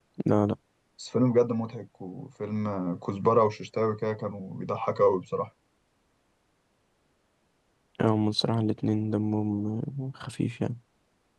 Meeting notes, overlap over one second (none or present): none